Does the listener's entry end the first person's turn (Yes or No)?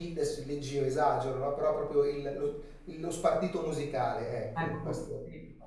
Yes